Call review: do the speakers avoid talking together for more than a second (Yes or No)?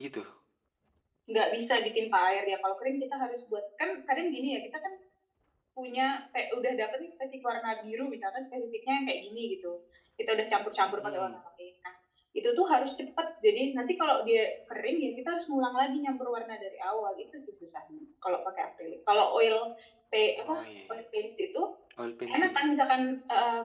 Yes